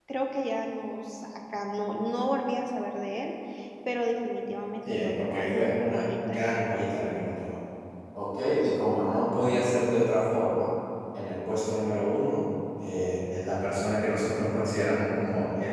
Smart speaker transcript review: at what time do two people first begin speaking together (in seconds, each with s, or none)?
4.9 s